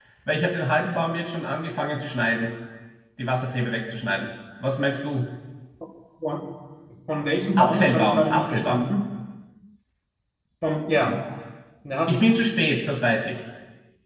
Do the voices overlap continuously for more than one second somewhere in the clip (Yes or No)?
Yes